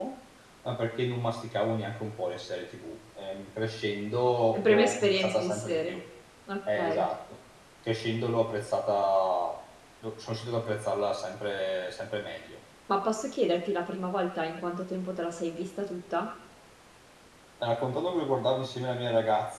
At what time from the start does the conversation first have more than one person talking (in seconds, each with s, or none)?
4.6 s